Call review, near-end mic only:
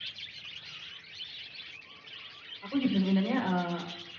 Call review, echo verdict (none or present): none